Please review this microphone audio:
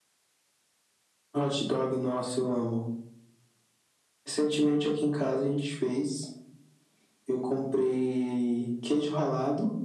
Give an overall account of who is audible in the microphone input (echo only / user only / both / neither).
echo only